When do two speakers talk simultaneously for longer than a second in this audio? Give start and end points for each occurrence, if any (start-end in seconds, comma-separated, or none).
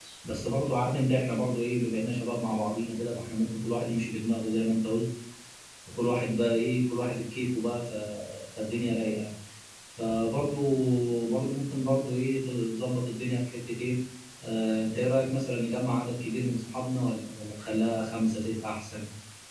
none